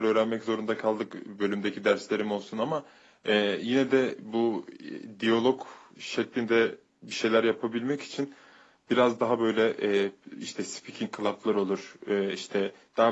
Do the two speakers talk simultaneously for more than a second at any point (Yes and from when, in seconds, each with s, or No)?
No